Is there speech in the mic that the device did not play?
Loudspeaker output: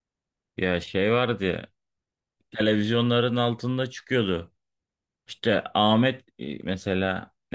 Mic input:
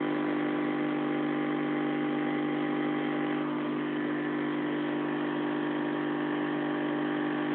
No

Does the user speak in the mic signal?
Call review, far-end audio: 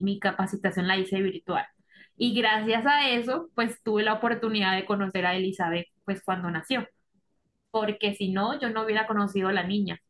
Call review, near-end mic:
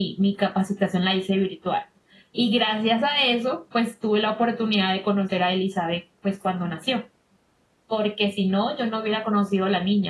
No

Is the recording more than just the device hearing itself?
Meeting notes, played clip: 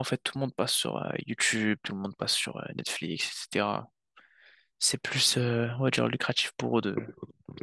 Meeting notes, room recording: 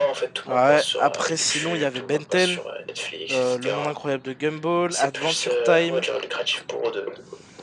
Yes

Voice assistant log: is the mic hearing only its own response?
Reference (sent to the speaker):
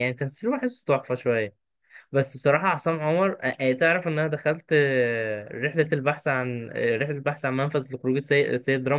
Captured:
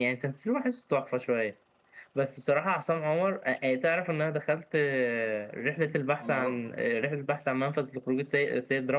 No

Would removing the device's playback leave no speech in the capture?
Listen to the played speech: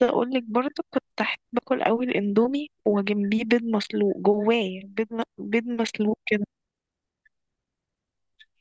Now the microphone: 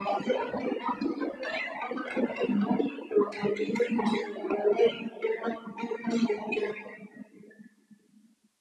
Yes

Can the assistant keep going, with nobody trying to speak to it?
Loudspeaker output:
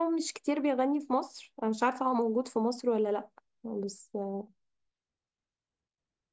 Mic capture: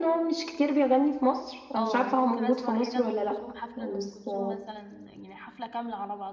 No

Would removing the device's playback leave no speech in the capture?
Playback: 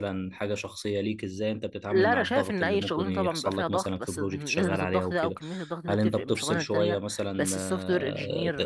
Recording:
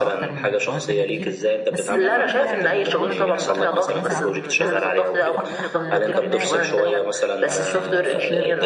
No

